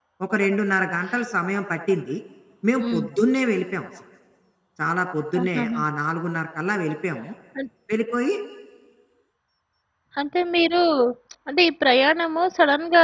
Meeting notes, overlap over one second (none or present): none